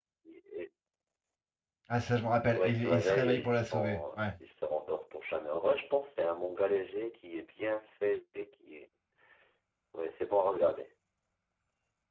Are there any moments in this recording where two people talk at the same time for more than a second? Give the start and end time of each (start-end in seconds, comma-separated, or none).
2.4-4.2